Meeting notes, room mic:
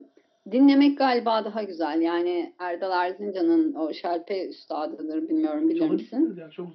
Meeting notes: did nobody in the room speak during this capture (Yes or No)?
No